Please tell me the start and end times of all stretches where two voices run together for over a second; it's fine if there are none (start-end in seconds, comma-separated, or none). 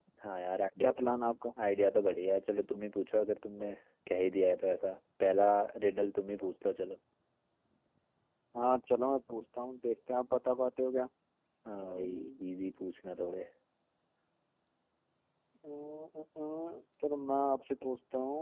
none